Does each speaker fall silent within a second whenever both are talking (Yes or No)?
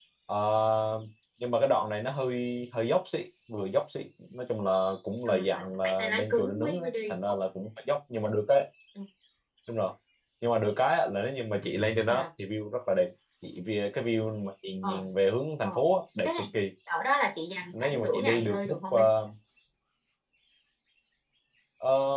No